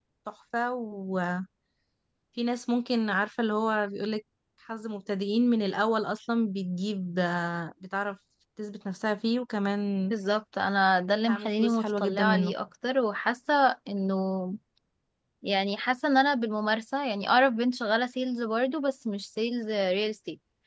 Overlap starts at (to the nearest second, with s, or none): 11 s